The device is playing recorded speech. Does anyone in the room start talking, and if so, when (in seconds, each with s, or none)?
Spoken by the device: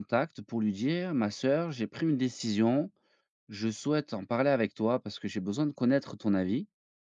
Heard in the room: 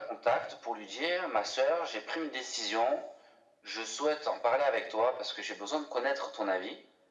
none